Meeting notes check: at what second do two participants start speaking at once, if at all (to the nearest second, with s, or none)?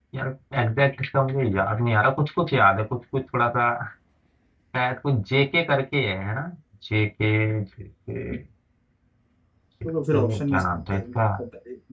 10 s